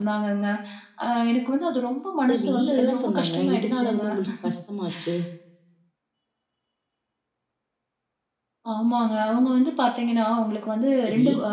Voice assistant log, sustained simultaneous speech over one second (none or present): present